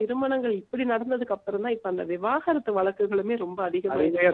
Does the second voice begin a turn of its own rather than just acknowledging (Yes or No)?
Yes